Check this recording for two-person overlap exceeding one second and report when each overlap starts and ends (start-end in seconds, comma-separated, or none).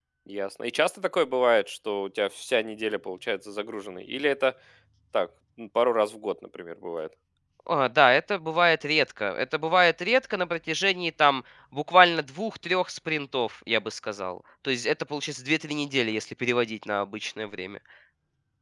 none